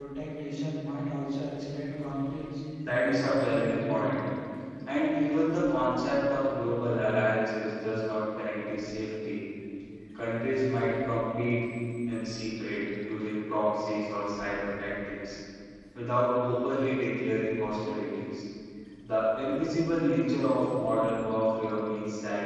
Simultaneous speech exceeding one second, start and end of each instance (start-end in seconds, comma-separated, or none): 2.9-4.1